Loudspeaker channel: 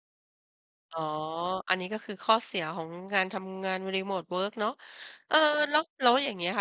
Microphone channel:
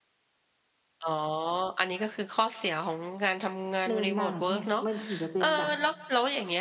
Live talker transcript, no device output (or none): เริ่มนั่ง เนี่ย! มันถึงจะเป็นแบบ